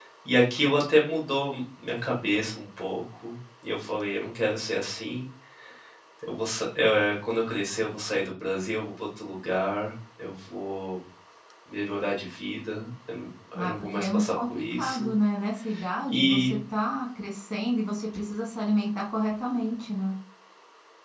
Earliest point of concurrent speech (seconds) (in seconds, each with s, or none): 13.6 s